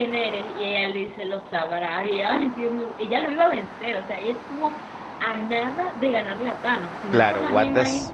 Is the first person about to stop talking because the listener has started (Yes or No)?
Yes